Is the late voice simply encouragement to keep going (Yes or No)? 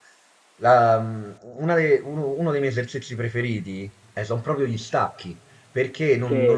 Yes